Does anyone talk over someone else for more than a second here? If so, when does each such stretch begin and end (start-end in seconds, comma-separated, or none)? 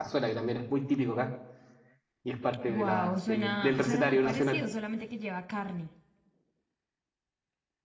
2.6-4.6